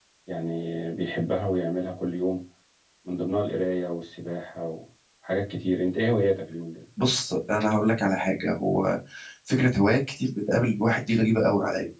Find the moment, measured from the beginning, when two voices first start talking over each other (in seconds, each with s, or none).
none